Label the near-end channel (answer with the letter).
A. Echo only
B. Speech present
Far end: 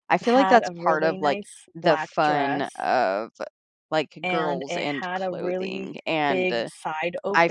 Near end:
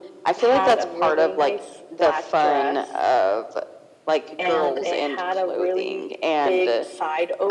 B